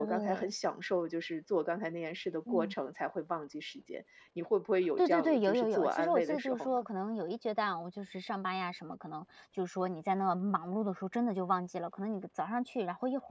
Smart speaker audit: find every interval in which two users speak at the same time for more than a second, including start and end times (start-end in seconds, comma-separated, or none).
5.0-6.8